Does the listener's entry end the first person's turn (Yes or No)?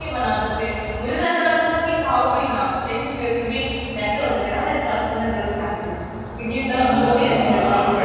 Yes